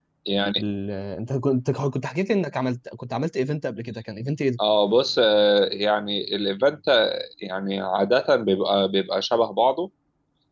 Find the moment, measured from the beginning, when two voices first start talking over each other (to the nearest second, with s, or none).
none